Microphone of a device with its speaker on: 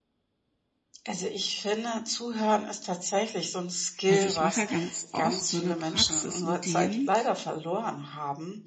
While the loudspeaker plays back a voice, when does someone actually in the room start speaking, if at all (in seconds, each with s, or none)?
4.1 s